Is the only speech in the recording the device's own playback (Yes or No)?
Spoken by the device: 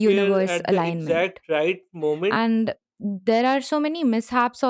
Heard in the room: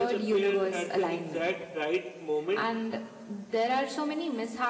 Yes